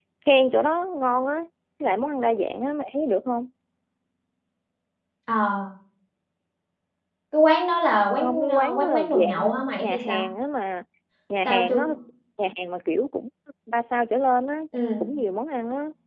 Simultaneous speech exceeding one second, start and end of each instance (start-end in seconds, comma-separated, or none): 8.2-10.2